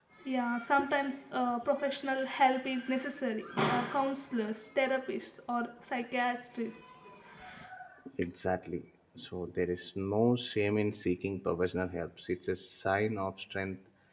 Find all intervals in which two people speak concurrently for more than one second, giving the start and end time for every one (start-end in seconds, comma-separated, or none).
none